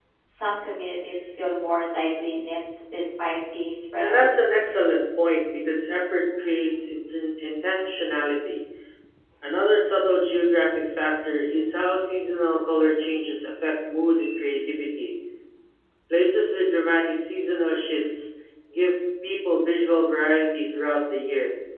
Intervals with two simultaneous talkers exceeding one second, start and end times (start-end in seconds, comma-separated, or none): none